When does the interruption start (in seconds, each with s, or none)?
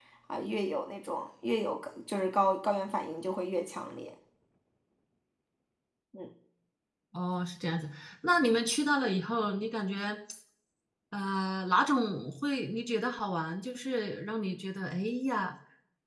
none